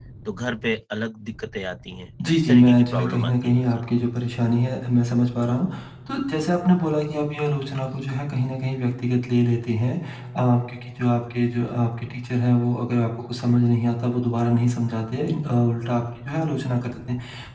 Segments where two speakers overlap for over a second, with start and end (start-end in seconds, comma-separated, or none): 2.3-3.8